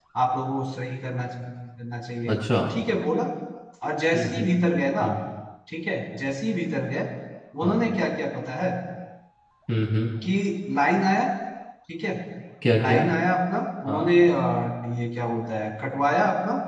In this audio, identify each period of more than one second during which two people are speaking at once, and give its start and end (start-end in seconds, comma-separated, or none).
none